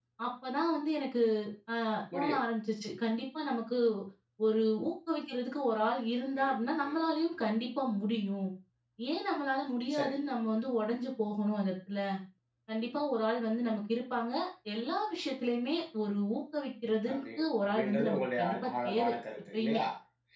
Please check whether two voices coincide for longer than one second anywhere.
Yes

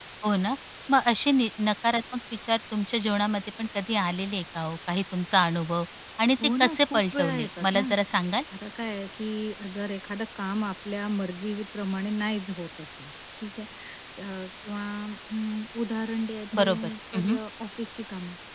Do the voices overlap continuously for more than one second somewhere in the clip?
Yes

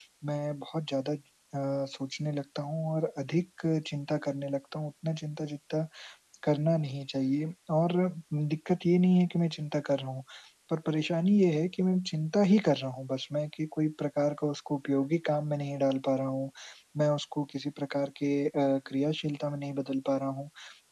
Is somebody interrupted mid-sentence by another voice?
No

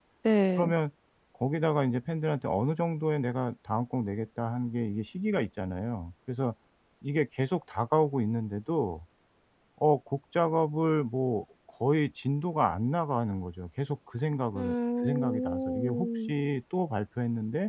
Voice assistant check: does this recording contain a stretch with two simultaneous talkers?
Yes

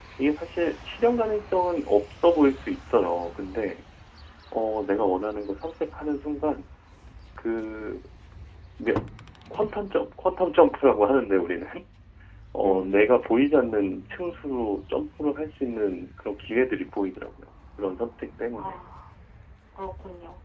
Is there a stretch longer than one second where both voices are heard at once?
No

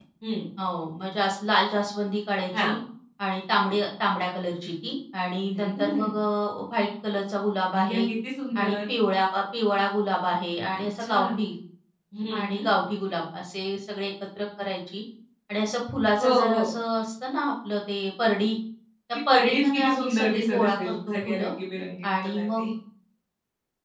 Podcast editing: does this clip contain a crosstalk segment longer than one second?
Yes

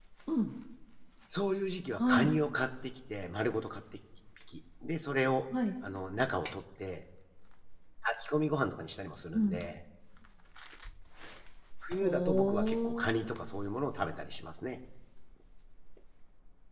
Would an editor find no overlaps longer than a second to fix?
No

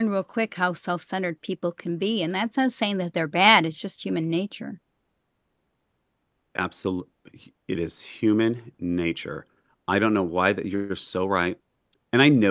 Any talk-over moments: No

